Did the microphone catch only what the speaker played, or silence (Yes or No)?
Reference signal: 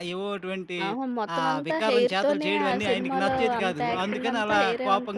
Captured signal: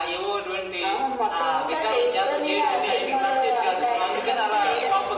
Yes